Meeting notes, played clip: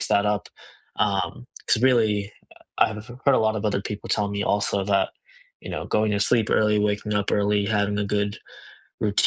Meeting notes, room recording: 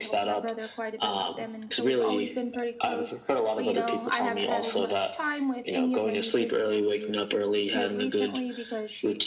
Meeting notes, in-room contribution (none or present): present